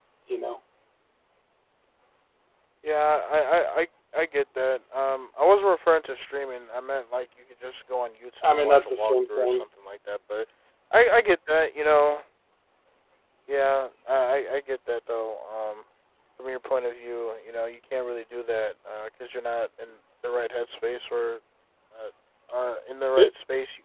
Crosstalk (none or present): present